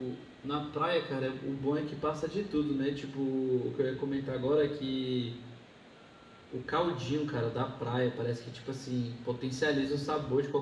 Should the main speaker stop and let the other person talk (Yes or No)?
No